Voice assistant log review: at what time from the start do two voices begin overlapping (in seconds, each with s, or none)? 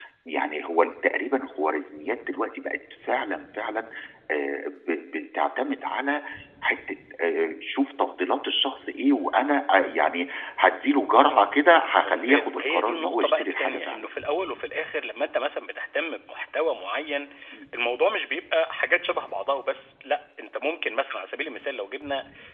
12.0 s